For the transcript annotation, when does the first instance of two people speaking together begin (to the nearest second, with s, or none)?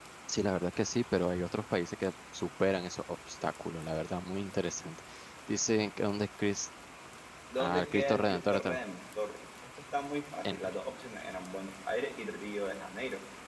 8 s